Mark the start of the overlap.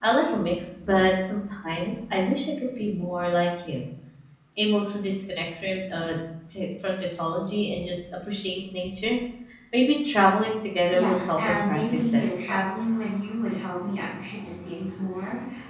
10.9 s

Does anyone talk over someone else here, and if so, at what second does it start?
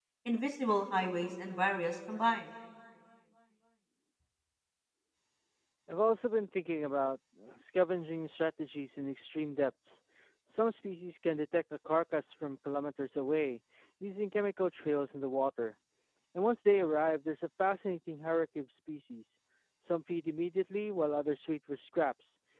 none

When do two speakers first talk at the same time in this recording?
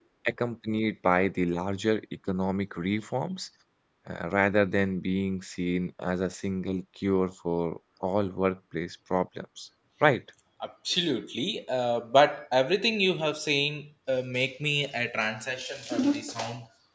none

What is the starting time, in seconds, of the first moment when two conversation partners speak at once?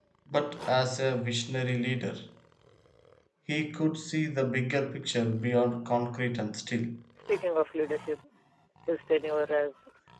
none

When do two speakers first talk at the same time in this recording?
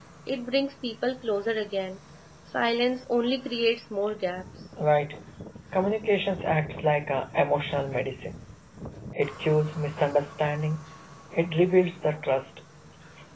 none

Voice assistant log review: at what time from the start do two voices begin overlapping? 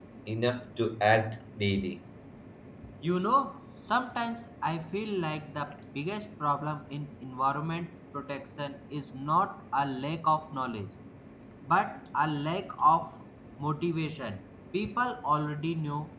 none

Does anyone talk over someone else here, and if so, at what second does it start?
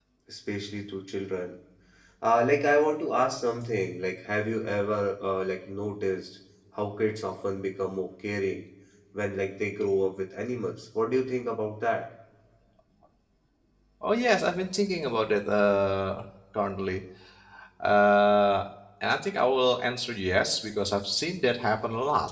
none

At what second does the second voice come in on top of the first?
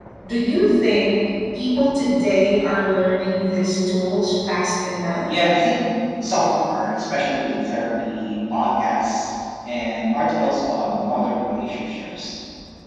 none

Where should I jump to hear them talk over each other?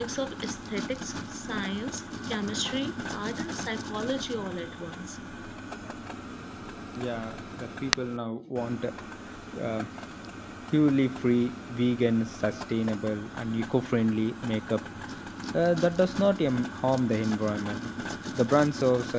none

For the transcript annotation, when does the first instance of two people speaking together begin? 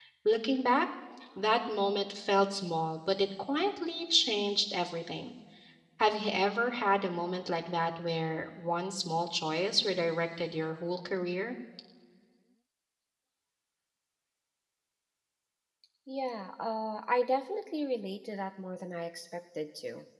none

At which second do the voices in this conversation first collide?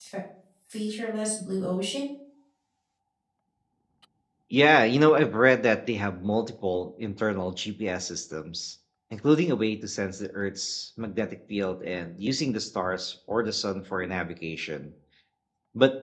none

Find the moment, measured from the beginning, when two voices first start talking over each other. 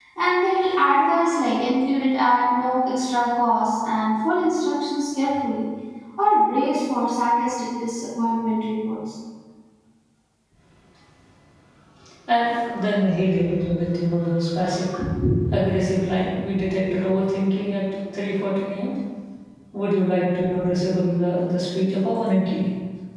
none

